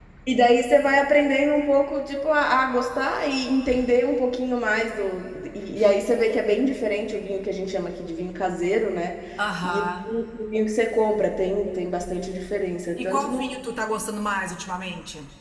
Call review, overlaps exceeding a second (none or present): none